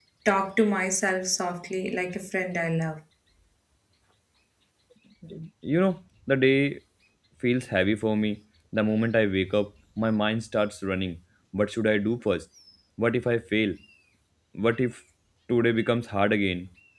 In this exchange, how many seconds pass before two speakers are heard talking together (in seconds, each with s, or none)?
none